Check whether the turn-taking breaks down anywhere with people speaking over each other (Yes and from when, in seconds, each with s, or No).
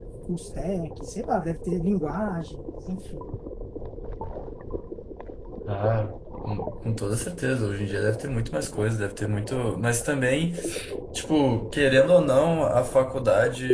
No